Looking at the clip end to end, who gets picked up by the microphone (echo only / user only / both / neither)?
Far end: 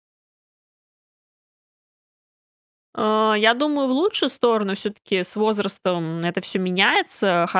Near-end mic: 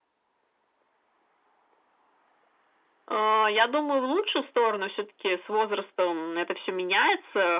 echo only